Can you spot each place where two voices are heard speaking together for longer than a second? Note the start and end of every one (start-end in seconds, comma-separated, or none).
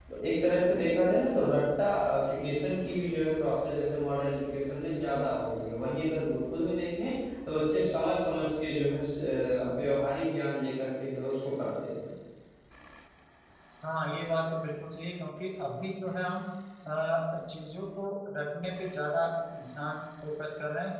none